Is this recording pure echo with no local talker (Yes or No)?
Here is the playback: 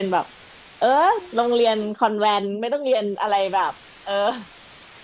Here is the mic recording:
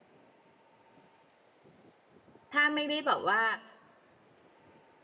No